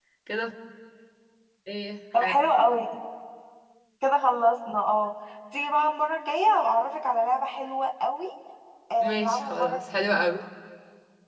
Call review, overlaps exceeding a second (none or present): present